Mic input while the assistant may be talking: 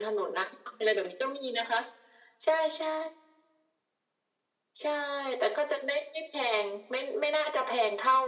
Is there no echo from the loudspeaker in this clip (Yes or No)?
No